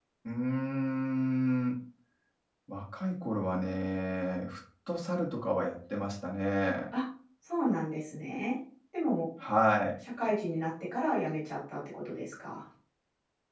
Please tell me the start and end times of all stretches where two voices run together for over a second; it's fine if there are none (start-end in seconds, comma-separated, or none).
none